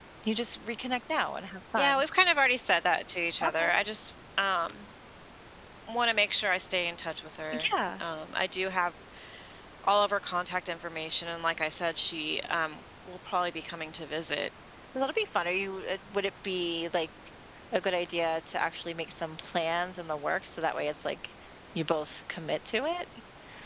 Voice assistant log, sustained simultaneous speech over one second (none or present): none